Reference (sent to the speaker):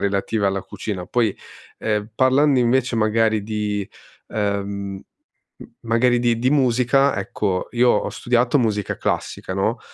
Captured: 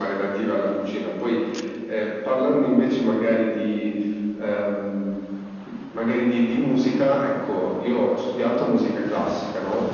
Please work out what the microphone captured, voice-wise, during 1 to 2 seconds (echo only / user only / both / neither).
echo only